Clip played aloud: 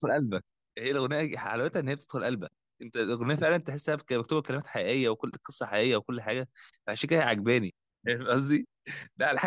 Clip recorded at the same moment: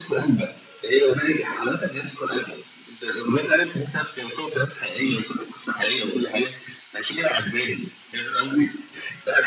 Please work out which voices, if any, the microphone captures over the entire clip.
echo only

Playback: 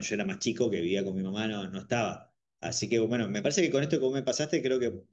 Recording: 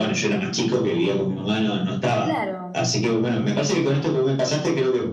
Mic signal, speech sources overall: both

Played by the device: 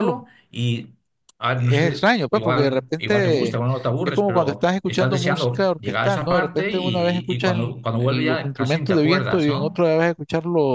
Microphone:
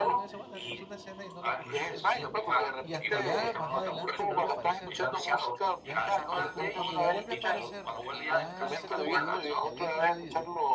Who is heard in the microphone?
both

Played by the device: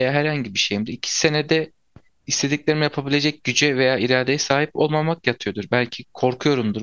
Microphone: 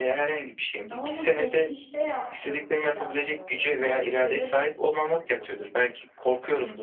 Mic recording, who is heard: both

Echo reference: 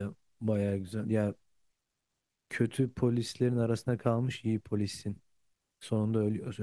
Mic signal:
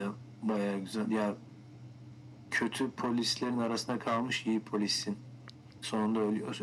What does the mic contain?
echo only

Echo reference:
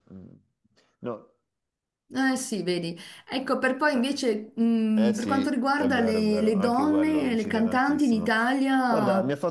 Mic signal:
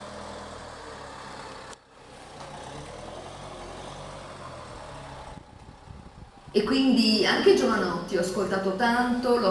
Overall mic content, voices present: user only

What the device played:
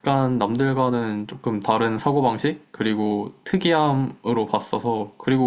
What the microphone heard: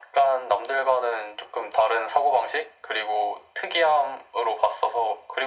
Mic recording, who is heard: echo only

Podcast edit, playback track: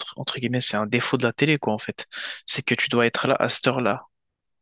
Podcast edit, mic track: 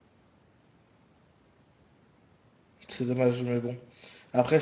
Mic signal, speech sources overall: user only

